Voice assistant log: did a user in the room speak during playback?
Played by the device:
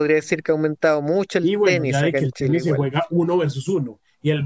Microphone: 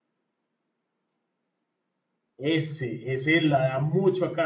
Yes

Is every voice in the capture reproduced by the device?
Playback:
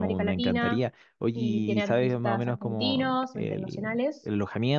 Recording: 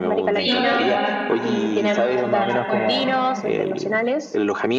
No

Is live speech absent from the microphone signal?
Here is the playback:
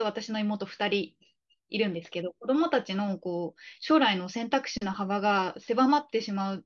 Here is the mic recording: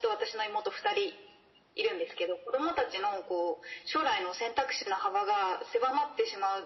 Yes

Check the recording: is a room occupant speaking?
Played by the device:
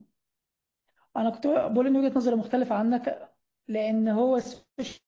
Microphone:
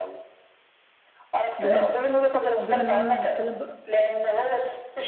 Yes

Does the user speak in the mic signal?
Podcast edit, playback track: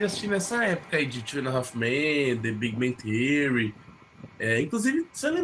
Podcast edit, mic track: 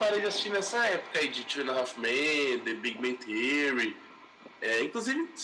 No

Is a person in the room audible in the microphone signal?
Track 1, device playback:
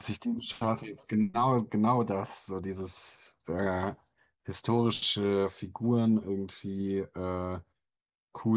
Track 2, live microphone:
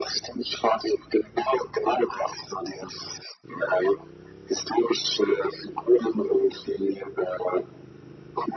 No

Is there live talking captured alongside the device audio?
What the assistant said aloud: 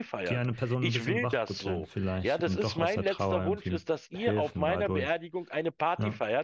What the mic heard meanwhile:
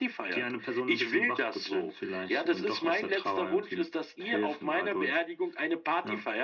No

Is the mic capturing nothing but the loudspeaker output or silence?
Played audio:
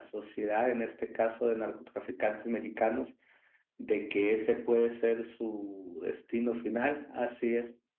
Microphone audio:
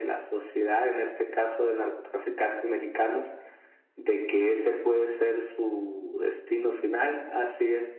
Yes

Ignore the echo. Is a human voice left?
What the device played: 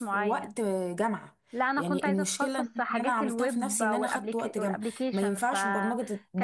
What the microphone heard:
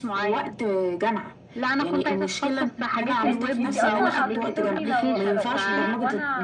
Yes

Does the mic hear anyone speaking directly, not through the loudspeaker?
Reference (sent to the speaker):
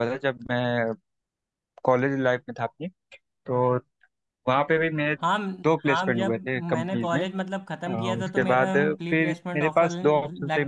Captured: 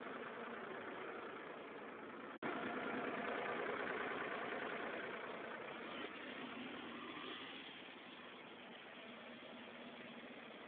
No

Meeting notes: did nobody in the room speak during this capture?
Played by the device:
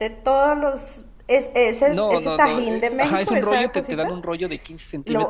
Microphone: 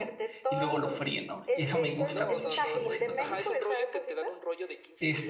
No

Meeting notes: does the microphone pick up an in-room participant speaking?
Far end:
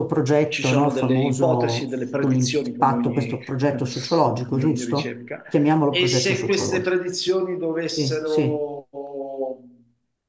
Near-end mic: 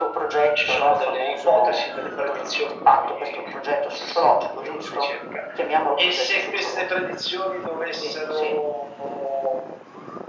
No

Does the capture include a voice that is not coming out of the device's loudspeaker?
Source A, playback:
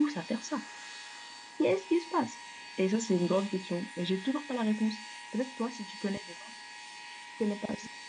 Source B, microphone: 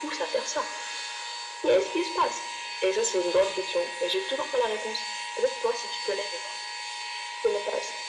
No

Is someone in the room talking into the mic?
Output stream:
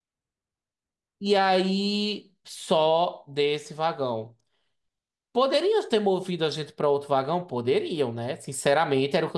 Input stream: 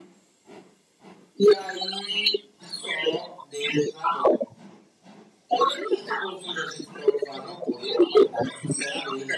No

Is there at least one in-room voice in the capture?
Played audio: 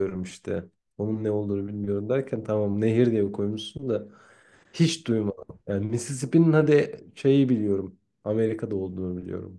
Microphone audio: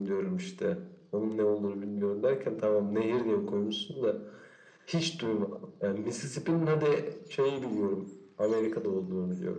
No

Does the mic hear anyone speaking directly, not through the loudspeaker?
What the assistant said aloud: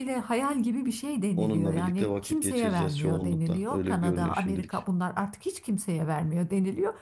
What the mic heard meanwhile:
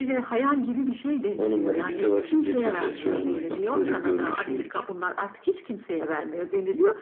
Yes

